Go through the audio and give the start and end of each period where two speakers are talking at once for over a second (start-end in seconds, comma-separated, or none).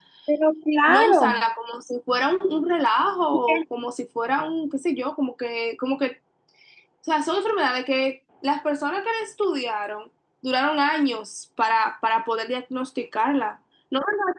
none